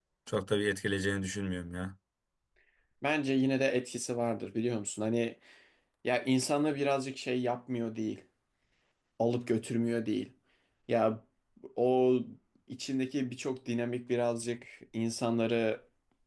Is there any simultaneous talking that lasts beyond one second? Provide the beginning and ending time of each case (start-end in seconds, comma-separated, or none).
none